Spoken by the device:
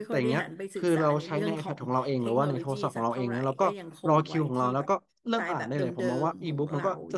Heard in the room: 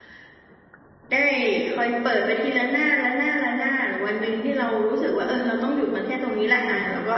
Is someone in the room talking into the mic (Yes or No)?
Yes